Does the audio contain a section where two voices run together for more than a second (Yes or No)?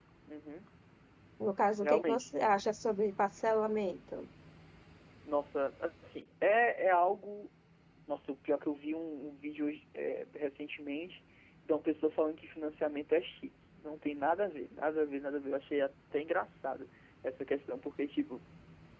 No